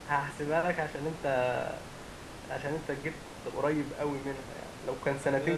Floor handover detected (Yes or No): Yes